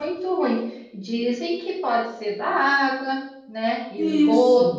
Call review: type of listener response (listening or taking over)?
listening